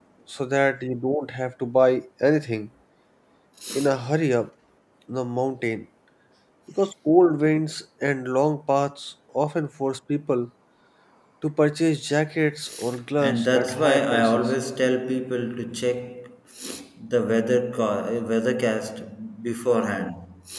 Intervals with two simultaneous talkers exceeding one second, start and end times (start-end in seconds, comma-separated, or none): 13.2-14.5